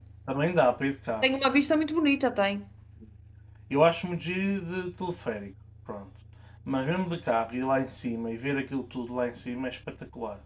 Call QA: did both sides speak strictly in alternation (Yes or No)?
Yes